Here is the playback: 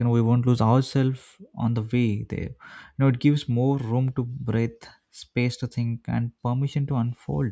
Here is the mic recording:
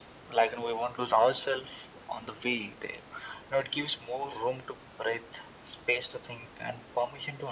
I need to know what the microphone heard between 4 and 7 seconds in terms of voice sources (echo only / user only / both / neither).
echo only